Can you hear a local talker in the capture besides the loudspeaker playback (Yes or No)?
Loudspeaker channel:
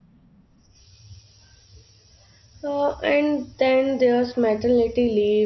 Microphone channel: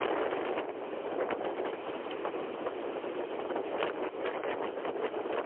No